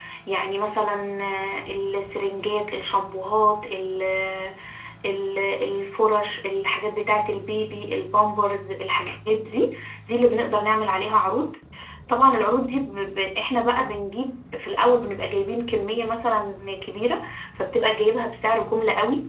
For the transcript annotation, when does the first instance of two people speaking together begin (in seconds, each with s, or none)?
none